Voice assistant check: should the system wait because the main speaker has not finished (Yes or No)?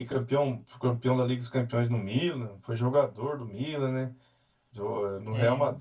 Yes